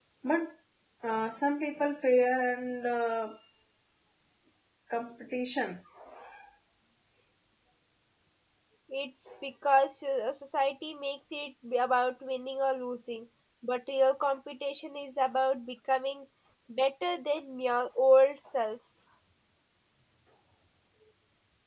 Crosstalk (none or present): none